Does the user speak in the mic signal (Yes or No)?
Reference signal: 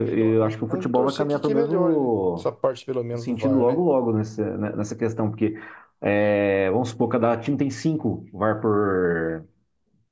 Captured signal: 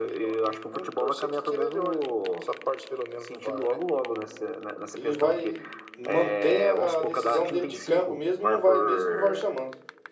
Yes